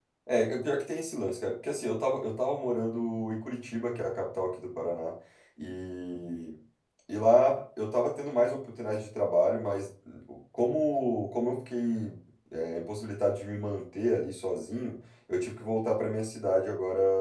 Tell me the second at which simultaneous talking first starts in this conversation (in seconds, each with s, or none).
none